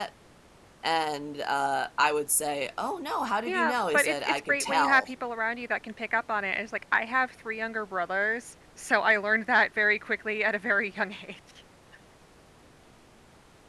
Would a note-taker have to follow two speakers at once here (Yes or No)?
Yes